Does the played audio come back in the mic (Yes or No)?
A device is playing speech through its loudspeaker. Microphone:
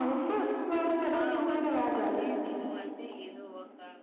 Yes